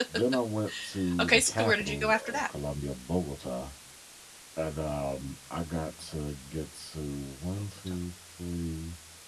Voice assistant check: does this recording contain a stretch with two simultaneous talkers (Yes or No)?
Yes